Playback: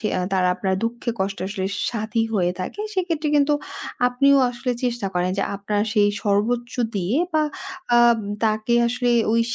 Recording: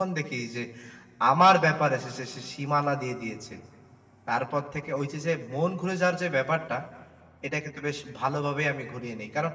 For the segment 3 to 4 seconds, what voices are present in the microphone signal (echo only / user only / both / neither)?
user only